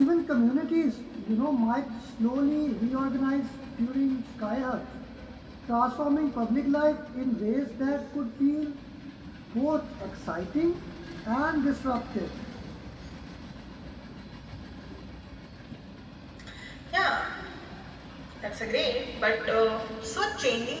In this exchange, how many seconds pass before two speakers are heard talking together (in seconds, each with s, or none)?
none